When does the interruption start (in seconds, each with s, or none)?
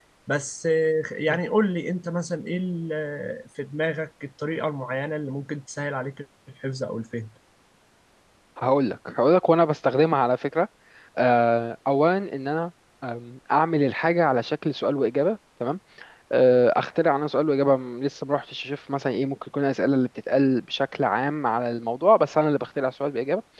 none